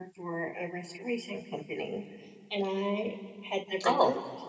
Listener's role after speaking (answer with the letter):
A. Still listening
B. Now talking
A